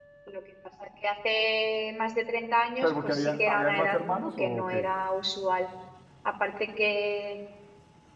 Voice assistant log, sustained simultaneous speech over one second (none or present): present